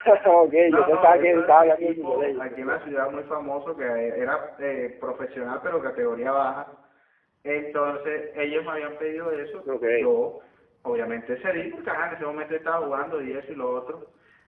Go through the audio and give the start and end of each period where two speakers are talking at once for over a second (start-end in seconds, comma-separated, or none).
0.6-2.8